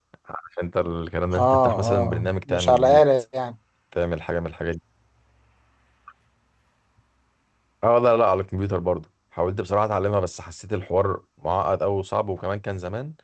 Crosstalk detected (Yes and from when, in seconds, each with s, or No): Yes, from 1.3 s